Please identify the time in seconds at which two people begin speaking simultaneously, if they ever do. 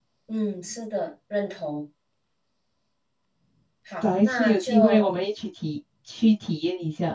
4.0 s

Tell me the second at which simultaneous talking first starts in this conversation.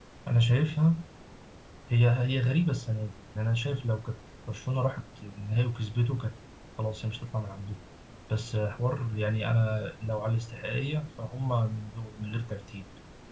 none

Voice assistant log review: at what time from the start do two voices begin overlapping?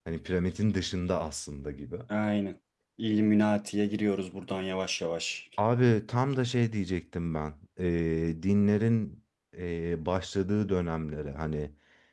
none

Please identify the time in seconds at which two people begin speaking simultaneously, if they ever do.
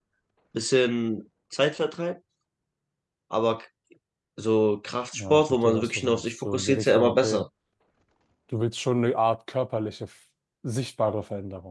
5.1 s

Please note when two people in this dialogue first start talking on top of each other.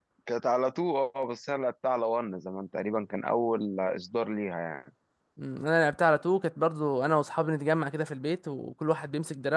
none

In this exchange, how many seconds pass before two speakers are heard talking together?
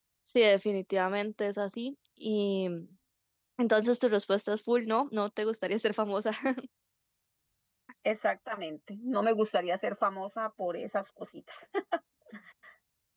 none

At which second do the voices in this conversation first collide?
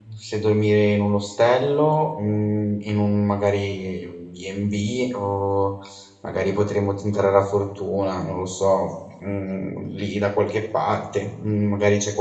none

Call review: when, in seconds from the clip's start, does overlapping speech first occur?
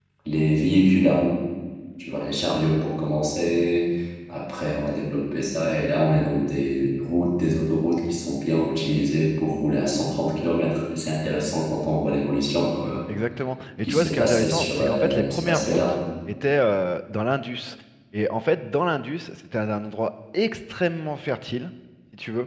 13.8 s

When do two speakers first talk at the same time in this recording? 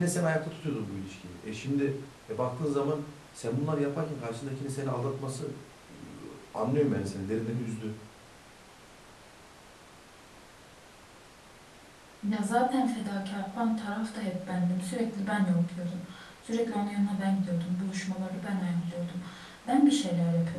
none

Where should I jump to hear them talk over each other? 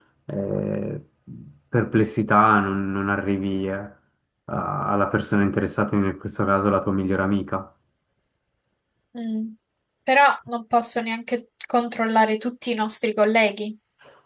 none

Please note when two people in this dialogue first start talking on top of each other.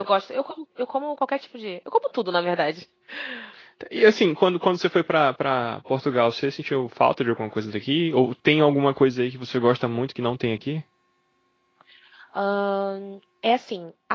none

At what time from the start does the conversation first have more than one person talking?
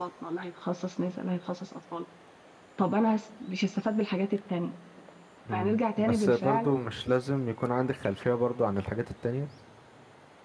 5.5 s

